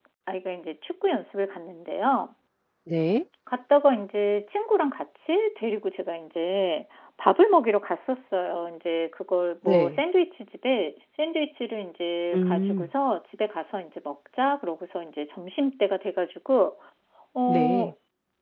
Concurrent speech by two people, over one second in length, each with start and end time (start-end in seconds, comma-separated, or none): none